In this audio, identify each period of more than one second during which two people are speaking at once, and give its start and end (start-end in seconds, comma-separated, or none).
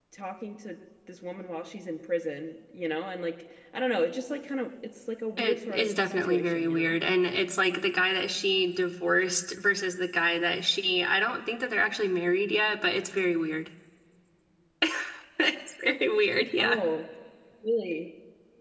5.4-7.0